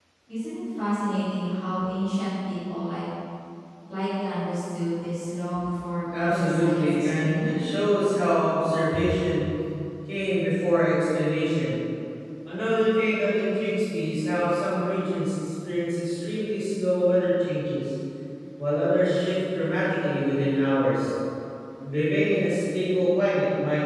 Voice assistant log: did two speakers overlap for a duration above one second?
Yes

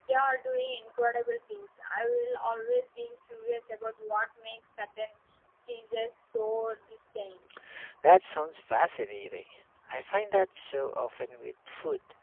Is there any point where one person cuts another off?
No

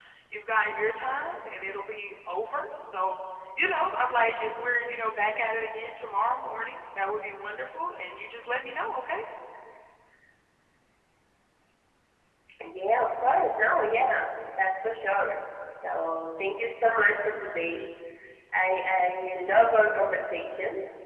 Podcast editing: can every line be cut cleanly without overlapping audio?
Yes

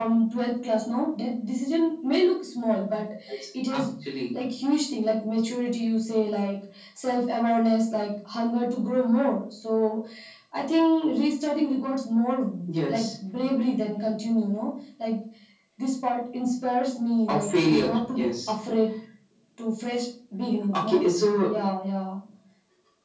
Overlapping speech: Yes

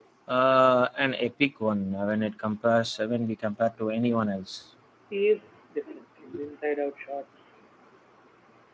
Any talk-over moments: No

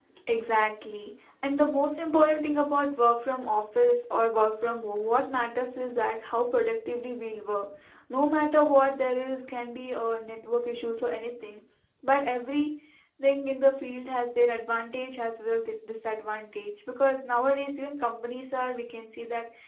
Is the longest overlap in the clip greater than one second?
No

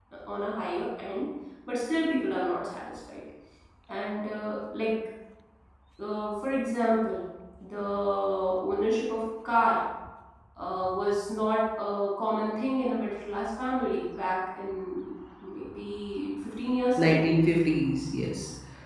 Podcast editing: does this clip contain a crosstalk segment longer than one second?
No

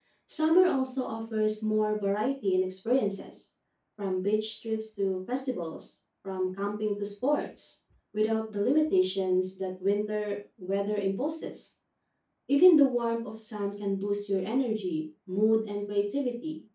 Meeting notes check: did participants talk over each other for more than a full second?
No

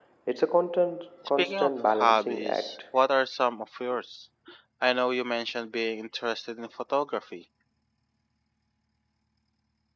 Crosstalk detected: Yes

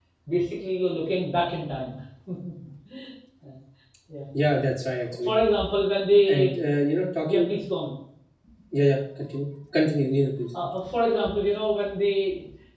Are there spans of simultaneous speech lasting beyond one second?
No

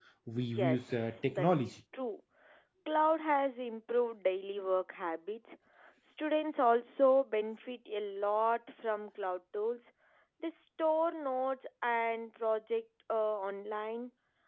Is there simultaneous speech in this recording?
Yes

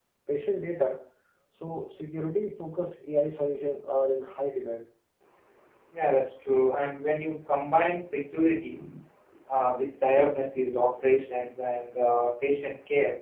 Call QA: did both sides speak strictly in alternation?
Yes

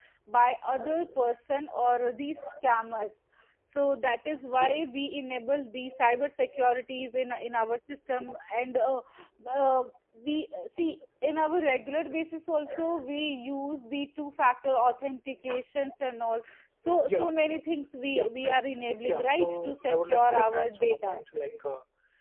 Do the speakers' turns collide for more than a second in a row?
Yes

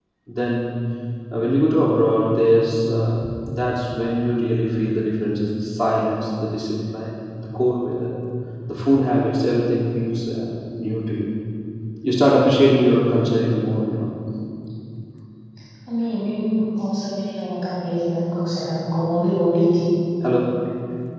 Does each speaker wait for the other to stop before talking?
Yes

